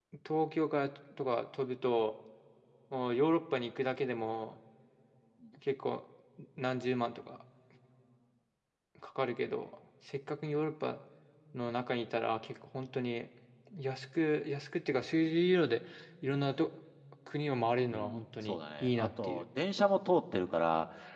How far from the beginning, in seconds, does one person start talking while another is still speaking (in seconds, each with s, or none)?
17.9 s